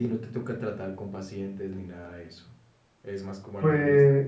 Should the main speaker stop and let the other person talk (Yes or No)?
Yes